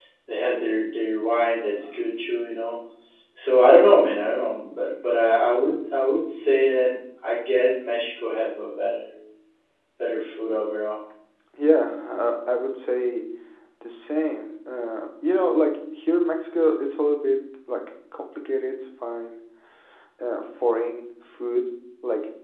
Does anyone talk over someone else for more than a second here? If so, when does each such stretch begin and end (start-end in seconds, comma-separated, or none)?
none